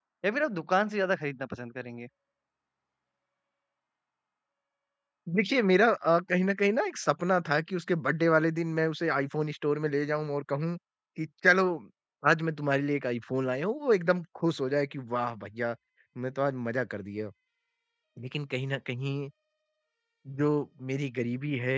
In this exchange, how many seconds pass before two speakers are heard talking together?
none

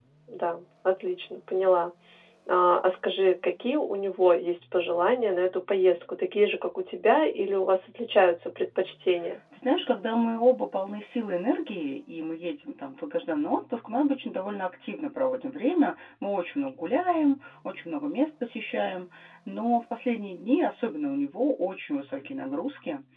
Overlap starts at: none

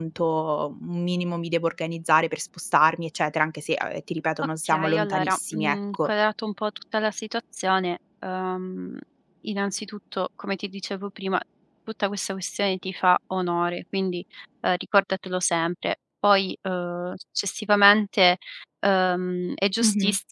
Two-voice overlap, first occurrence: 5 s

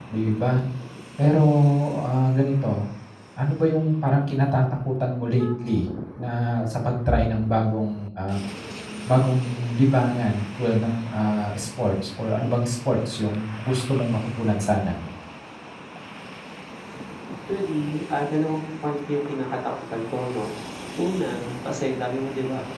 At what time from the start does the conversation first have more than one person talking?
none

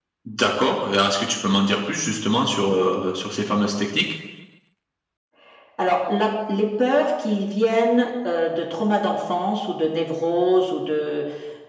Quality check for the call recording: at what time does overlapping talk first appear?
none

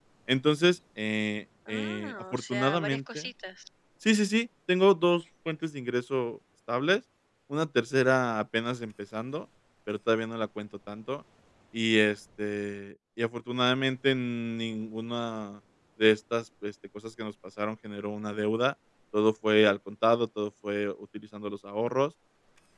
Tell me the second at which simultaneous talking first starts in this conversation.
2 s

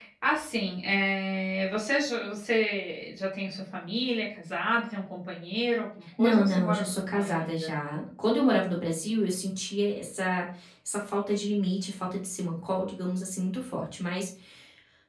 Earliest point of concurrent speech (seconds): 6 s

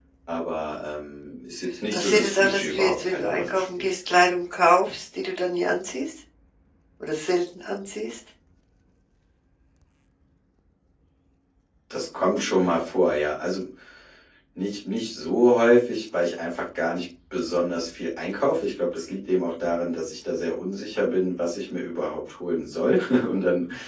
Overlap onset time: 2 s

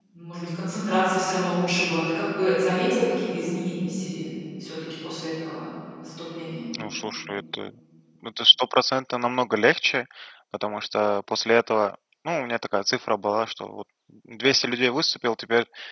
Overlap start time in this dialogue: none

